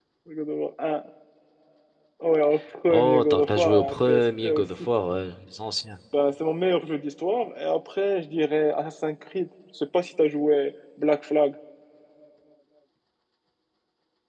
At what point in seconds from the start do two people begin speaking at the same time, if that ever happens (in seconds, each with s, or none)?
2.9 s